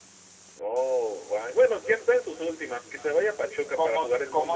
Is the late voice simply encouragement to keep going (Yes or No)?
No